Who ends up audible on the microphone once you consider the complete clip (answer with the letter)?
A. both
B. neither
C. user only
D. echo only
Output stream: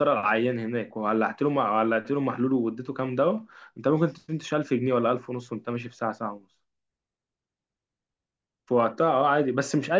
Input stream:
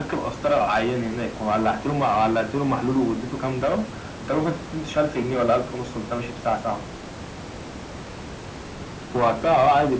D